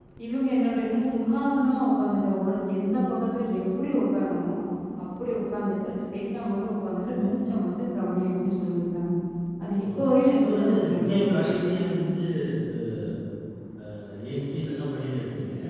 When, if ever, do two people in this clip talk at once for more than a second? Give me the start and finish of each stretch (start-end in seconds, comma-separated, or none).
10.4-12.1